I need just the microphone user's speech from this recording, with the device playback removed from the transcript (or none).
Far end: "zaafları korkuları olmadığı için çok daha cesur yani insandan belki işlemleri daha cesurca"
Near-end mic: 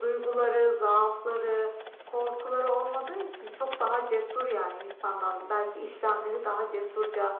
none